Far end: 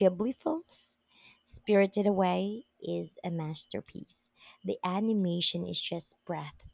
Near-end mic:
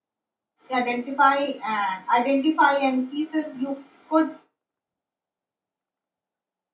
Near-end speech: present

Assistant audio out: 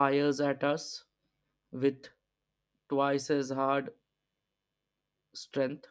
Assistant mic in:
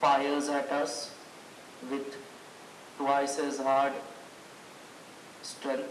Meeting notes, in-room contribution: none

